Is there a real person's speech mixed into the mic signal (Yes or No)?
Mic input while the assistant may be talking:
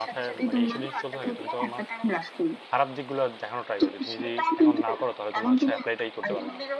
Yes